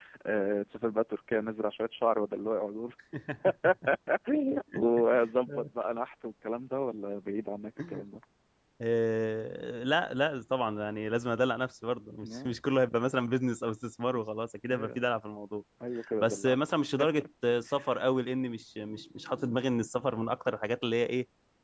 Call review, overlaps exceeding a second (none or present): none